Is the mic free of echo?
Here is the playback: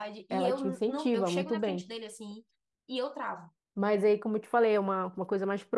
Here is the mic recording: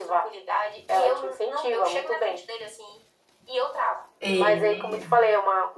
No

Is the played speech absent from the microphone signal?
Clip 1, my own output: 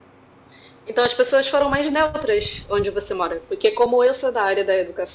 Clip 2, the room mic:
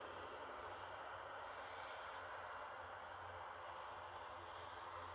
Yes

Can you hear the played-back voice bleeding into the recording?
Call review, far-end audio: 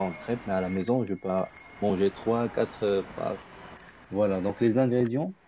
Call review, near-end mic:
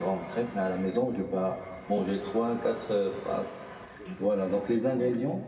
Yes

